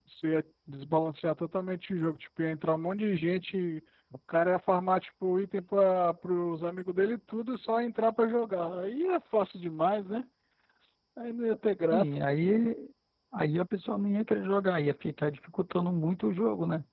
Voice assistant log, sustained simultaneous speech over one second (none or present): none